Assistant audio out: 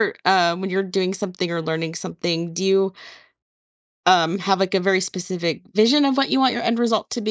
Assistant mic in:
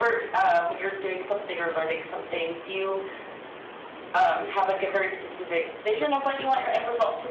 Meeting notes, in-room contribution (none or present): none